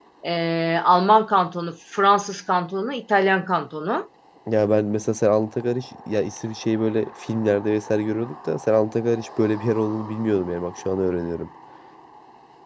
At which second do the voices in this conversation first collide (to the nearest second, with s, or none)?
none